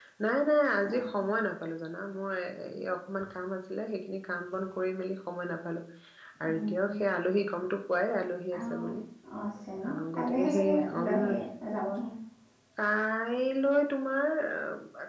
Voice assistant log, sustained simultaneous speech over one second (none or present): present